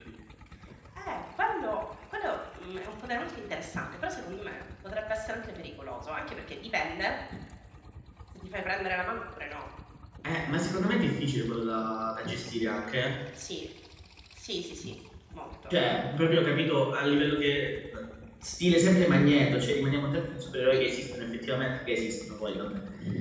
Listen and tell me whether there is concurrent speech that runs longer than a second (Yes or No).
No